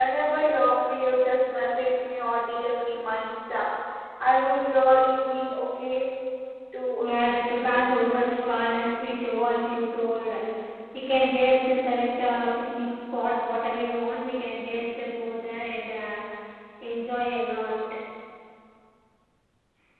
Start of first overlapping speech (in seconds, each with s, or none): 7.1 s